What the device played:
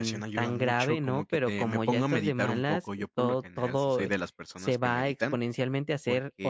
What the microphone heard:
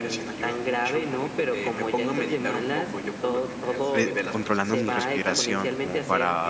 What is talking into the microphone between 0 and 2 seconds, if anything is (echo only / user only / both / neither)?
echo only